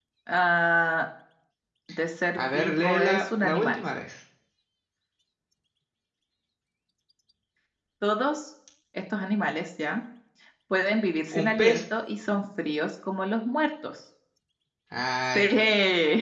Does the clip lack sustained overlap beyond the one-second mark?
No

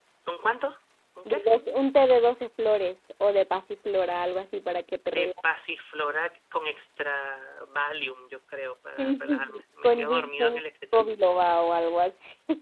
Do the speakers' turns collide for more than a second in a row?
Yes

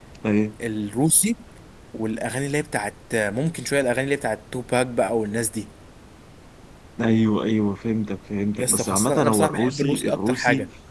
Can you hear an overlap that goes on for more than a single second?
Yes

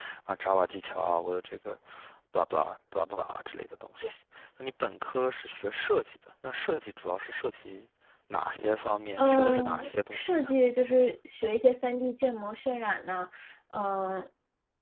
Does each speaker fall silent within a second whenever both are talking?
No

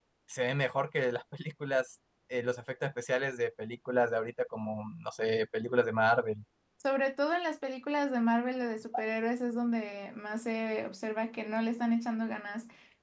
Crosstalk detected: No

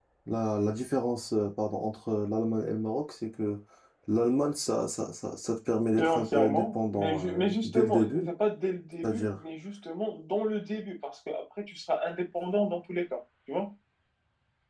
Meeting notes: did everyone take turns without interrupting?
No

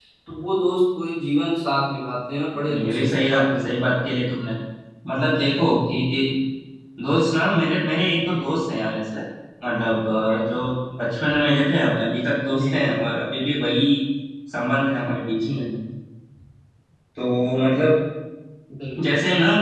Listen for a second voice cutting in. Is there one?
Yes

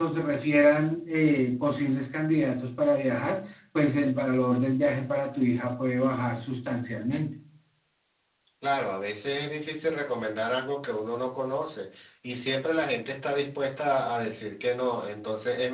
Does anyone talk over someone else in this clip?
No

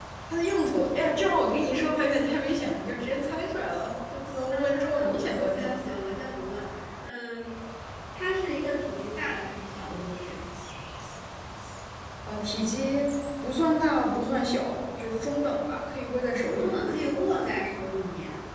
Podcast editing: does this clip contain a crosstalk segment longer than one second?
Yes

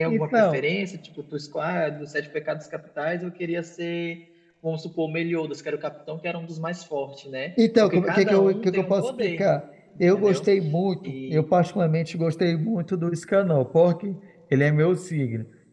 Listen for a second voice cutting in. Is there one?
Yes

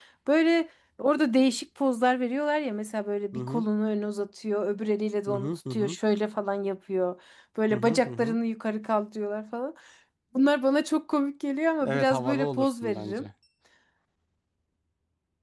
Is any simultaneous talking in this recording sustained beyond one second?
Yes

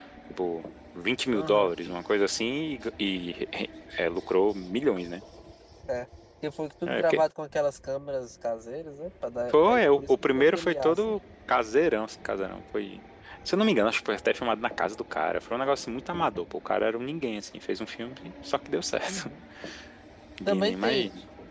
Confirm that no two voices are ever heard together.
No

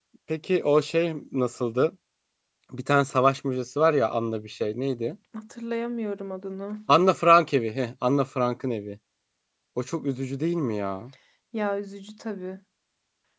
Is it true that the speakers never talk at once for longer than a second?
Yes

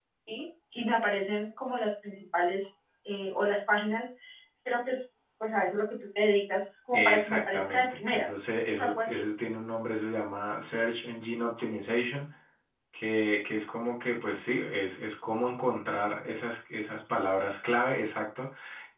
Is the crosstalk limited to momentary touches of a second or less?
No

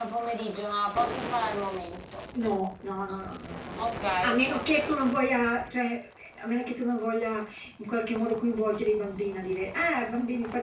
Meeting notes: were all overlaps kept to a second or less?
Yes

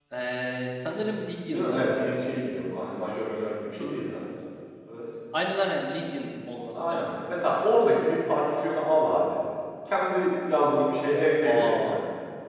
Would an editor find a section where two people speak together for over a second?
No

